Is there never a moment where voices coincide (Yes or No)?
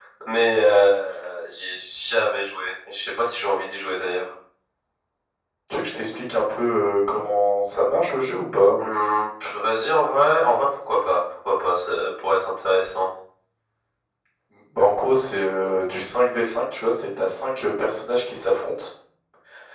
Yes